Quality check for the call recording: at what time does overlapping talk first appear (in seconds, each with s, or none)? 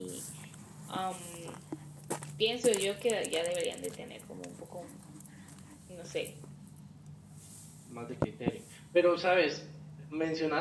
none